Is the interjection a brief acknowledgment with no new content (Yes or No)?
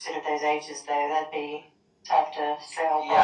No